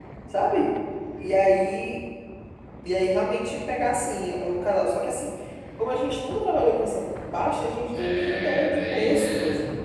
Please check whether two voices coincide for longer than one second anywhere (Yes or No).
Yes